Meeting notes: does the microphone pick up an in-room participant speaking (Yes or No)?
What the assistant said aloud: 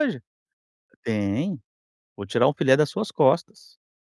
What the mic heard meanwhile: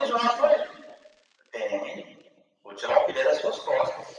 No